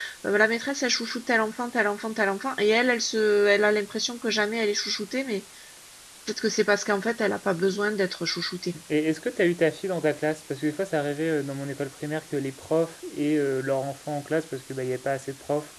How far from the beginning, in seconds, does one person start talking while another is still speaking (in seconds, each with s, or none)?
none